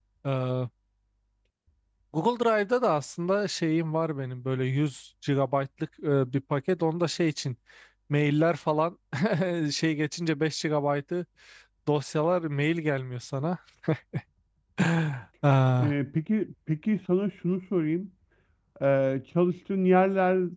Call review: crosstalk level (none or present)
none